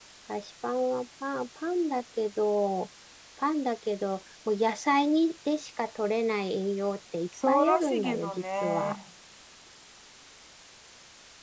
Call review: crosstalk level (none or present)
present